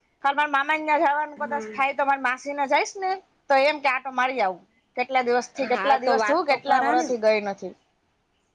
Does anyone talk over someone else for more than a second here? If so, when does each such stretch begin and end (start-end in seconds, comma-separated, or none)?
5.7-7.1